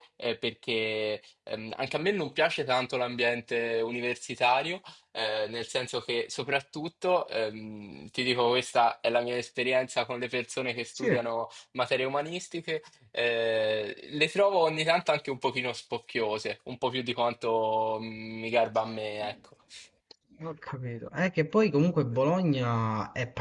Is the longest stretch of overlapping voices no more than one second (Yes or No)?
Yes